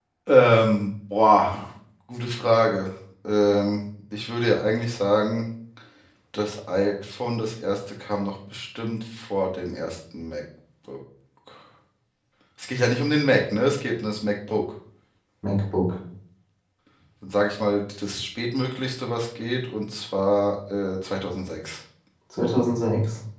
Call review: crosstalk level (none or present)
none